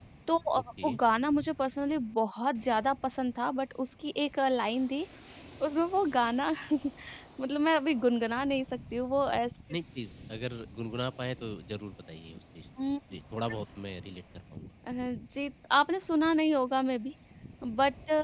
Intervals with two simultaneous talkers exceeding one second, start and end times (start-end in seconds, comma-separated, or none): none